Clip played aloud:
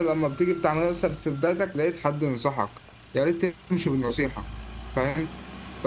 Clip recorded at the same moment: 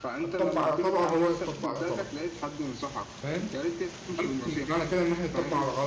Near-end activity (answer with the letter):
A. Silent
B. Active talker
B